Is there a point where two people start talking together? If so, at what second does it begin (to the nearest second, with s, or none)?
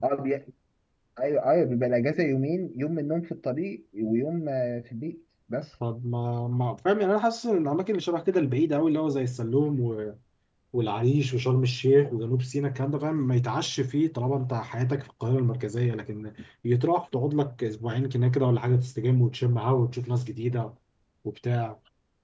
none